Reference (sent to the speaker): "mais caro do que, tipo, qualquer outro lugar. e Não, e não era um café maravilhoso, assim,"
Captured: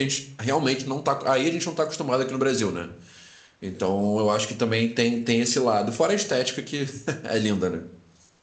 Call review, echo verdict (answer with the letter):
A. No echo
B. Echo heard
A